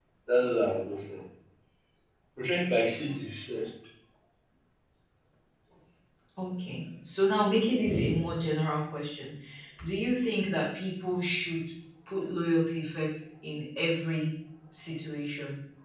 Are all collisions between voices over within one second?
Yes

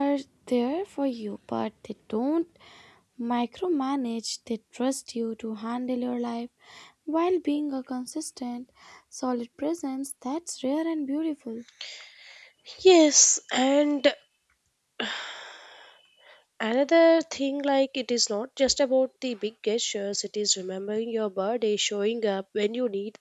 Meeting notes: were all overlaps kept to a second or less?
Yes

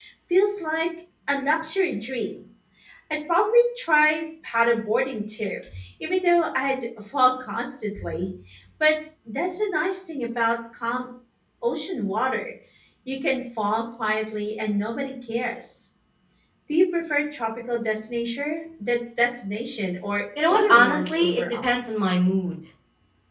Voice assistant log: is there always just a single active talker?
No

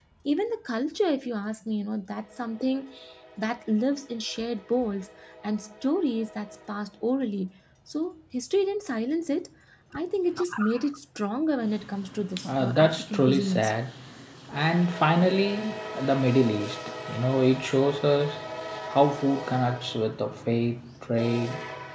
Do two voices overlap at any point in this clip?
Yes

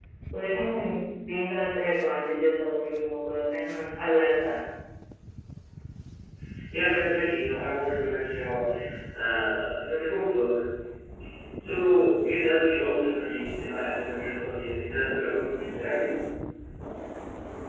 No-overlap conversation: Yes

